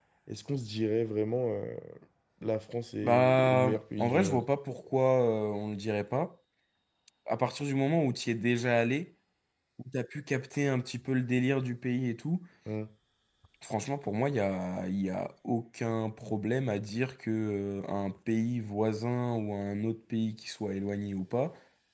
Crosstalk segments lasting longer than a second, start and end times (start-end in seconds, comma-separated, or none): 3.0-4.4